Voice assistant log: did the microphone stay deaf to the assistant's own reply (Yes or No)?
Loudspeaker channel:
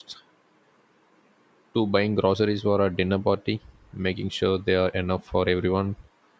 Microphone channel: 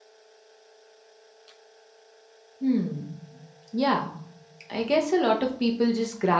Yes